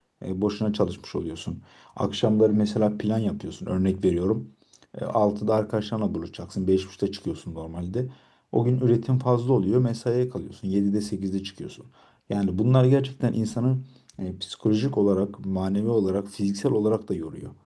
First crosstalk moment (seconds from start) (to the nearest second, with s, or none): none